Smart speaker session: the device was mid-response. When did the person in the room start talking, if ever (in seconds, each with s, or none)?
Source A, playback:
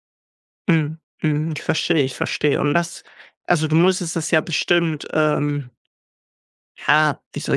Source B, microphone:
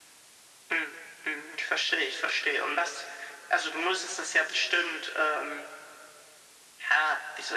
none